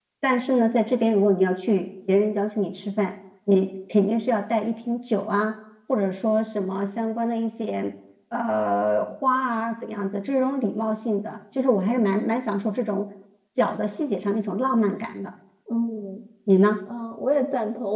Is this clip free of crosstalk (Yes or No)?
Yes